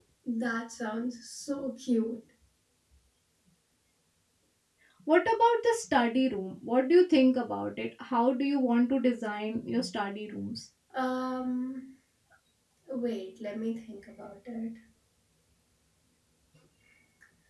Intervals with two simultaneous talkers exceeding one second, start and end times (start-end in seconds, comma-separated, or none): none